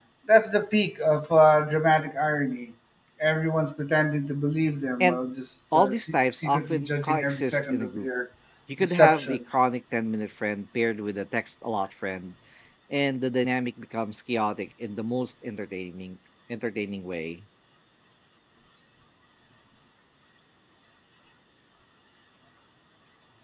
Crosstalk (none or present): present